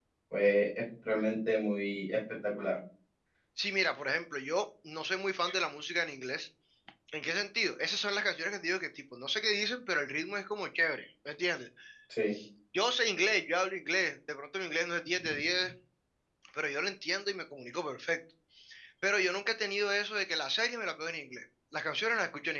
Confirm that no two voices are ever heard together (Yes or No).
Yes